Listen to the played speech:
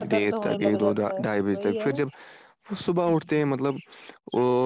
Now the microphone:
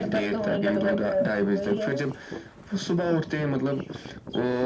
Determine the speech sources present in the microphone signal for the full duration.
echo only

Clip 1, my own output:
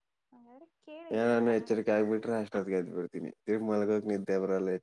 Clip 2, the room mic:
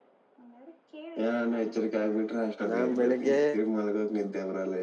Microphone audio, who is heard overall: both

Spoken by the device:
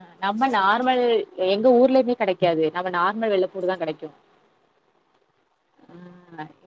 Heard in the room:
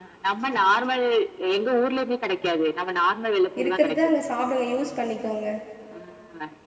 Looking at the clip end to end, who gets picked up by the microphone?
both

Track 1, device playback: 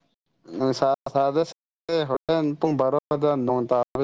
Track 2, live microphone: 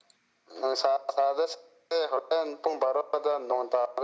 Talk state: echo only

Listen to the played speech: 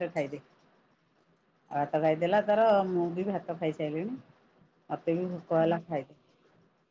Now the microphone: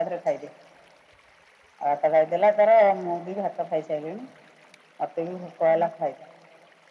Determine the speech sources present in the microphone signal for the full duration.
echo only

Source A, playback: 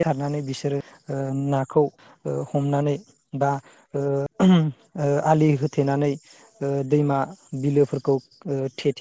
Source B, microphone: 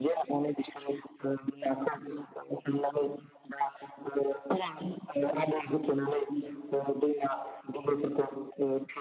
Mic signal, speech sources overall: echo only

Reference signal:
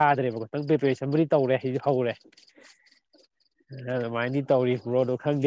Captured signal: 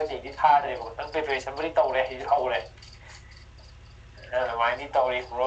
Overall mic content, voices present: echo only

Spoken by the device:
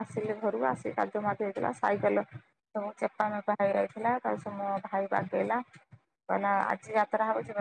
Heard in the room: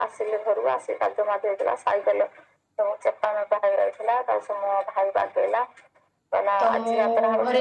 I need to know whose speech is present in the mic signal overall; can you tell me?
both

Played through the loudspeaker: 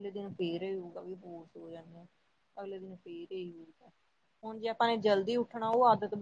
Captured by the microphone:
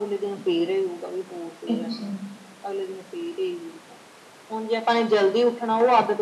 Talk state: both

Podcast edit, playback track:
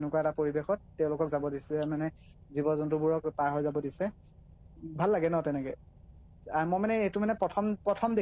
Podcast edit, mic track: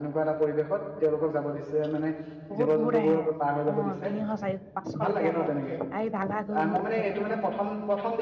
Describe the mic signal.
both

